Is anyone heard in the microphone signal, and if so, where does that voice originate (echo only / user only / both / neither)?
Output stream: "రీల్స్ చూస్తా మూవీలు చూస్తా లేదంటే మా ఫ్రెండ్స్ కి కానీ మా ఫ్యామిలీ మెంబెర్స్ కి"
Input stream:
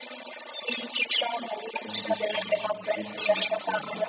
both